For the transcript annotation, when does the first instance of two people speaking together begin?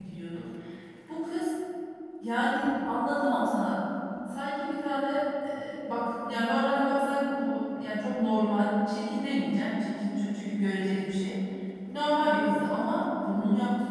none

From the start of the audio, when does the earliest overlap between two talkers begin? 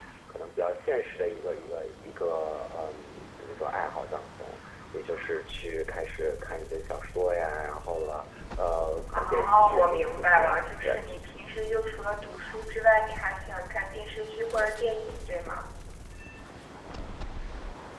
9.1 s

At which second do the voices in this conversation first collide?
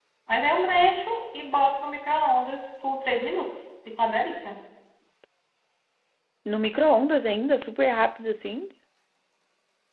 none

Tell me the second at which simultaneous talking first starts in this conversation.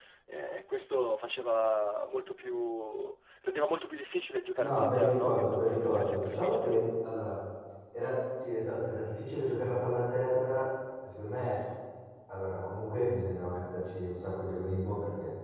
4.6 s

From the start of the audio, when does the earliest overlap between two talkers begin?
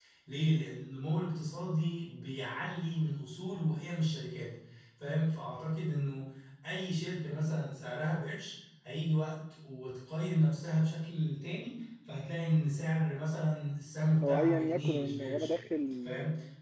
14.2 s

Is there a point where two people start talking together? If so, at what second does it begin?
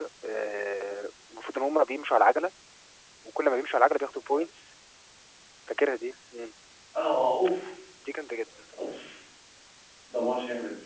none

